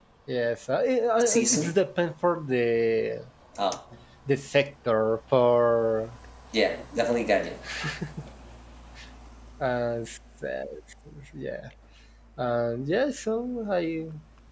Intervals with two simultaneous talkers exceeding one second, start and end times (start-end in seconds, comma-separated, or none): none